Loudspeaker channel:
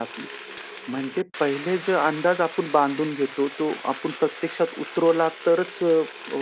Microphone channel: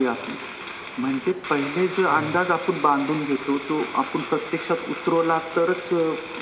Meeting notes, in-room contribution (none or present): present